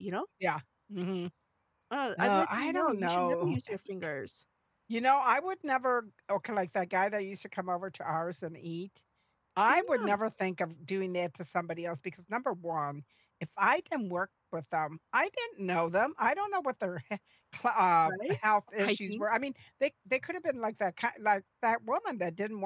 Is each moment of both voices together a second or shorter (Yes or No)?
No